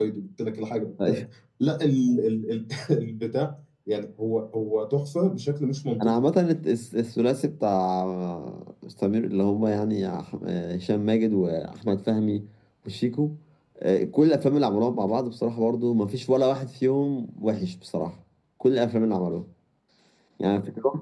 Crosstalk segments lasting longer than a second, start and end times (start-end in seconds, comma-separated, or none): none